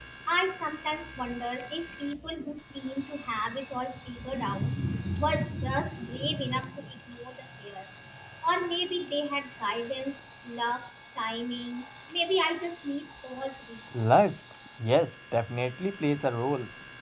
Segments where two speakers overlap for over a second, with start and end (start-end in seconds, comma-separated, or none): none